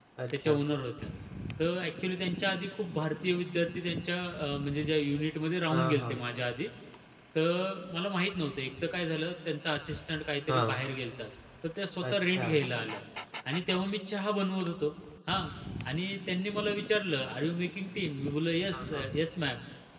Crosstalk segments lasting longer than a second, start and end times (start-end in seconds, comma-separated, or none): none